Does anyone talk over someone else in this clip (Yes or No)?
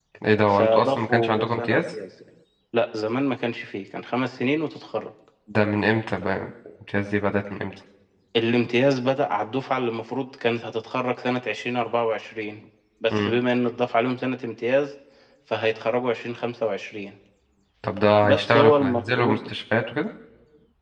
Yes